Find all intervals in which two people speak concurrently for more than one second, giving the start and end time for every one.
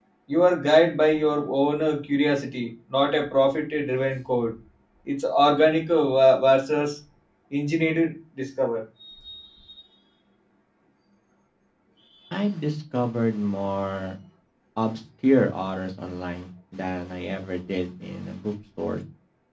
none

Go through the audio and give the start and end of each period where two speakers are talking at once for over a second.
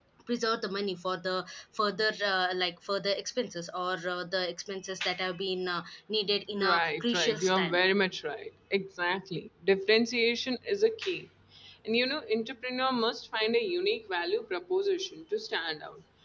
6.6-7.8

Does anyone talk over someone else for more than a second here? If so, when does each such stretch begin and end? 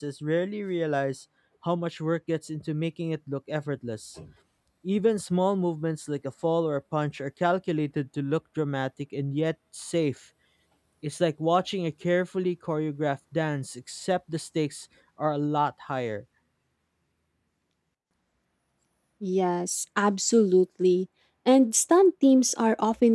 none

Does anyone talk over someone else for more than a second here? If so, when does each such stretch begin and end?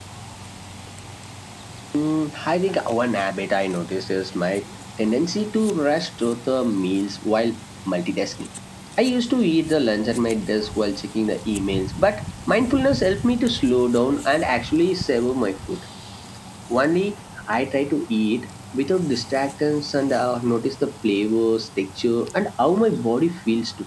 none

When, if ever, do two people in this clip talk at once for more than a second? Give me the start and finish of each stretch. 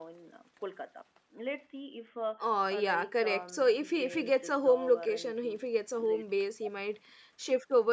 2.7-5.6

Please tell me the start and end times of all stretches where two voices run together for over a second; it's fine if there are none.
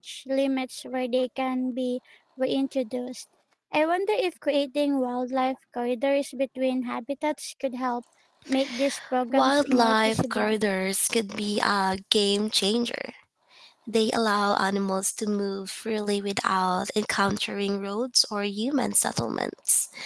9.3-10.6

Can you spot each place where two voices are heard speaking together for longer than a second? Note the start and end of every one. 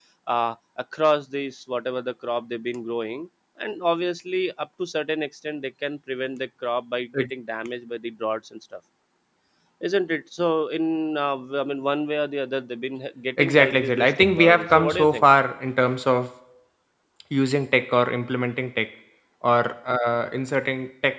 13.4-15.2

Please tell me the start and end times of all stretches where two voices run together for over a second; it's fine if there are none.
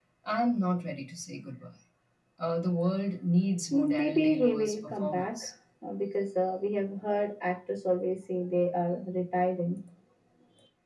3.7-5.5

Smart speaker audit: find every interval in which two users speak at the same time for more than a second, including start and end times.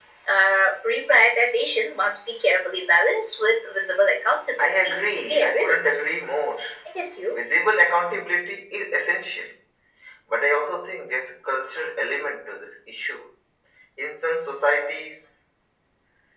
4.6-6.0

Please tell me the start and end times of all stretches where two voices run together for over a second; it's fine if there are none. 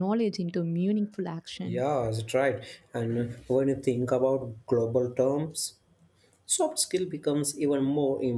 none

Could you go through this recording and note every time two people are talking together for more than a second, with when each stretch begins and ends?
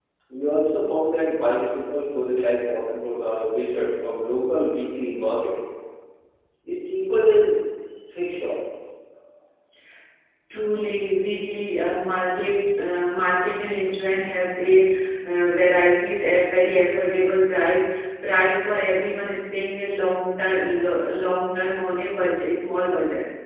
none

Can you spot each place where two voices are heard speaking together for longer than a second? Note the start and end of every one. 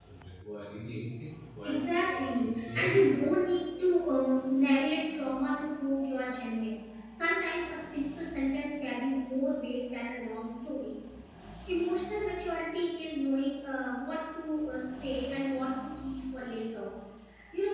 1.6-3.1

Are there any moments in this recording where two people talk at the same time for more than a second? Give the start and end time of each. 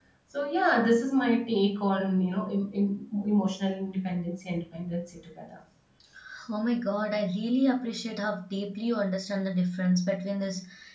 none

